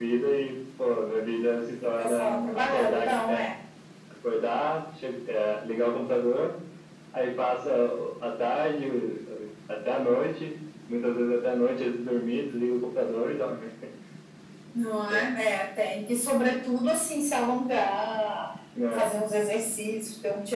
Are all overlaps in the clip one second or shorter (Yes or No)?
No